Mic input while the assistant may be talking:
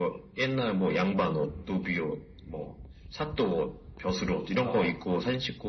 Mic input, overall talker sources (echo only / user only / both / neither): both